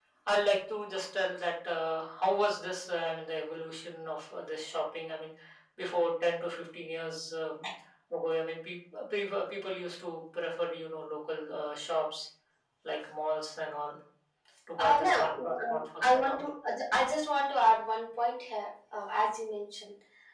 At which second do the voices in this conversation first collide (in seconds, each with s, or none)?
14.8 s